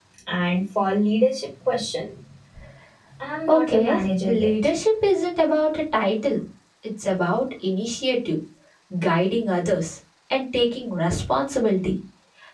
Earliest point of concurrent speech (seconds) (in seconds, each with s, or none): 3.5 s